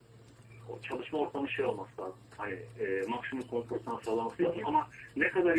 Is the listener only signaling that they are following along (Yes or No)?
Yes